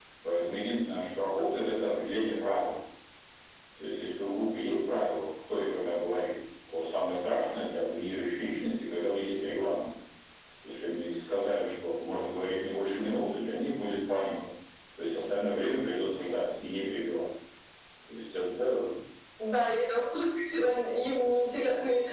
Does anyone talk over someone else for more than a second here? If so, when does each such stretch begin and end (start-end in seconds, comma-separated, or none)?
none